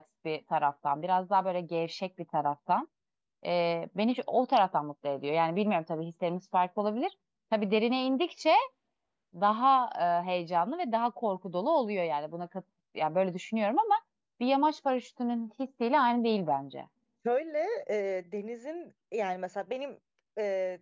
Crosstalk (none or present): none